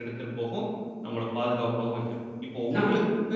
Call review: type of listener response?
listening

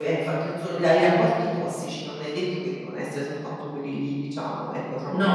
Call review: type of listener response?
listening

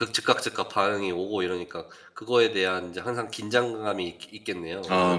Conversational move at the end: taking over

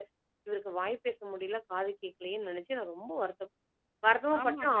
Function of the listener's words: taking over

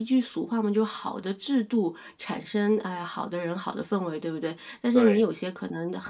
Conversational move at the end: listening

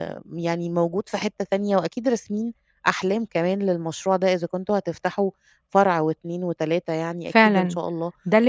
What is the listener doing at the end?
taking over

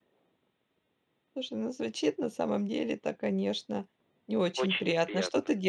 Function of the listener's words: listening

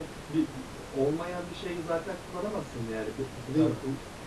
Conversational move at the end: listening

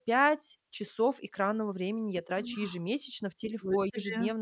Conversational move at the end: listening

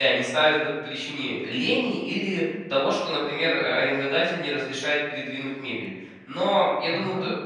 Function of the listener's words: listening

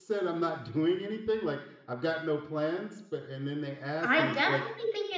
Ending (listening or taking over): taking over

